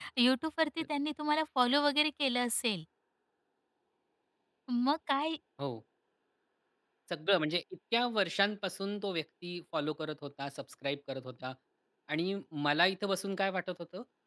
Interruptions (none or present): none